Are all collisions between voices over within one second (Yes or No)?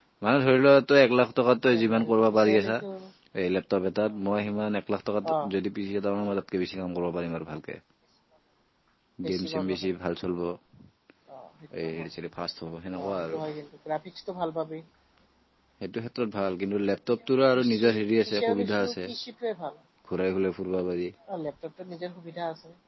No